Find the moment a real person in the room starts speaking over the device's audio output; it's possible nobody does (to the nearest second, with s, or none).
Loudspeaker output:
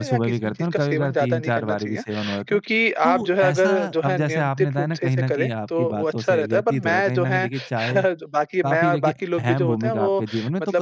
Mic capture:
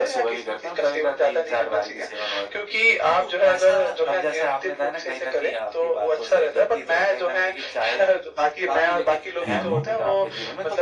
9 s